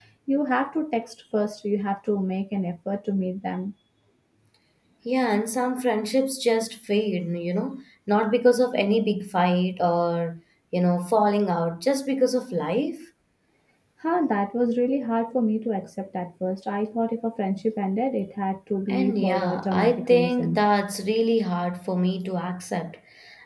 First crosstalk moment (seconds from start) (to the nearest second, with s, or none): 19 s